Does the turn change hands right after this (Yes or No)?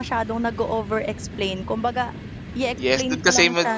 Yes